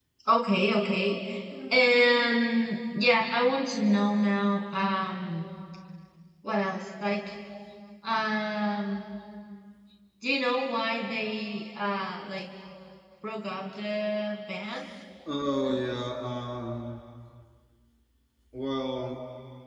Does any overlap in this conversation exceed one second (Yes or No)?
No